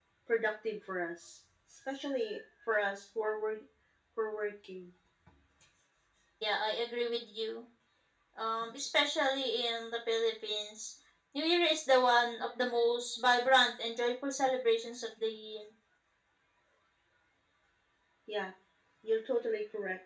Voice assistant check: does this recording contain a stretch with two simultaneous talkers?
No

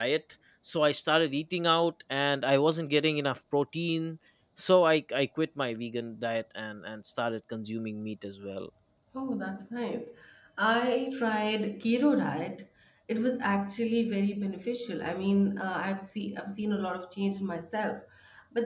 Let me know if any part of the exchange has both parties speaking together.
No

